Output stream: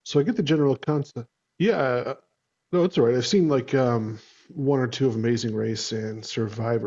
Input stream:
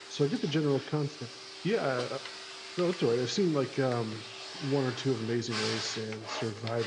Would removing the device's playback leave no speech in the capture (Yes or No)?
Yes